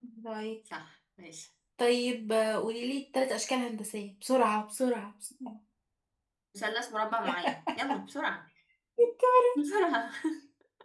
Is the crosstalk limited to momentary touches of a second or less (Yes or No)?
Yes